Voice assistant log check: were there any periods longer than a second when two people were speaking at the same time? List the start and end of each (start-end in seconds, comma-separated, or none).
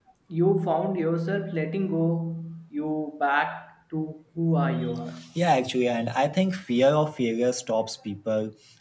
none